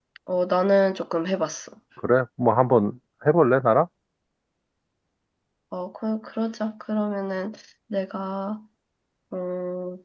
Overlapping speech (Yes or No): No